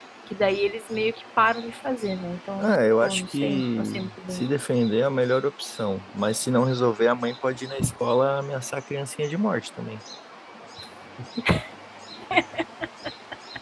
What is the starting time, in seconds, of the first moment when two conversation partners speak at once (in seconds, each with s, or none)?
2.6 s